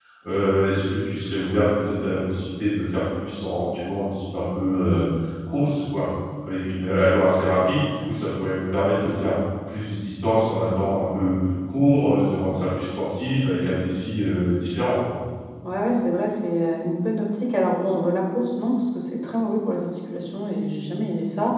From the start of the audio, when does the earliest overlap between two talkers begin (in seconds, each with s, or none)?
none